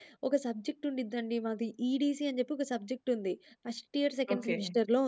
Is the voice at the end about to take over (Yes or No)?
No